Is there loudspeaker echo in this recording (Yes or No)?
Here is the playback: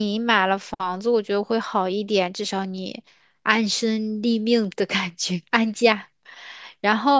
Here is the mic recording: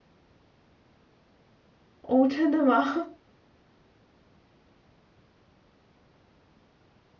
No